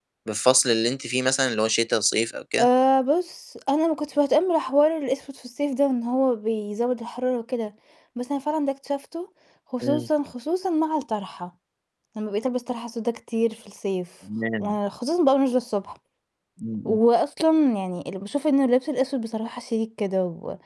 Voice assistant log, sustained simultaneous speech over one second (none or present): none